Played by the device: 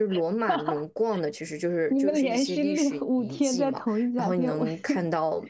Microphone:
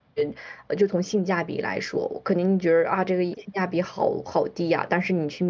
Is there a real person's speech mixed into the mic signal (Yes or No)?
Yes